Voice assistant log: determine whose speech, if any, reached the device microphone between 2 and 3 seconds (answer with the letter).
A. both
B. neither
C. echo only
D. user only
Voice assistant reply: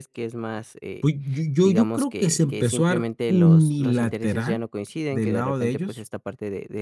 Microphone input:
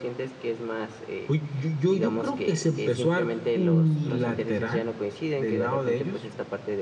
C